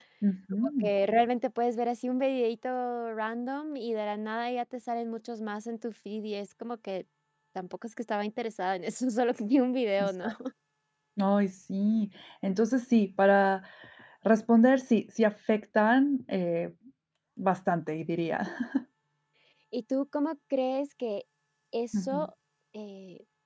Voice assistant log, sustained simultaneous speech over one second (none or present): none